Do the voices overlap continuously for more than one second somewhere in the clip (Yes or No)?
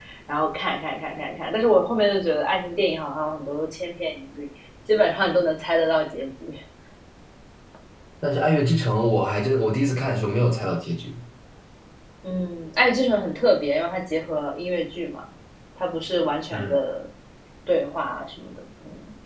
No